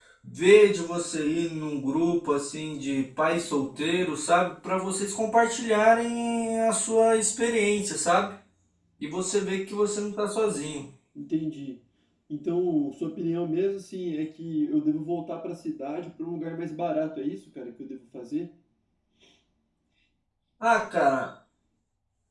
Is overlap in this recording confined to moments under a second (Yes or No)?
Yes